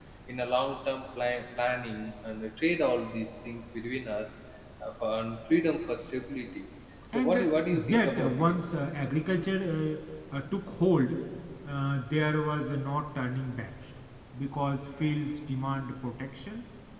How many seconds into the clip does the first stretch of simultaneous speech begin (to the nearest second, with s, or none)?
7 s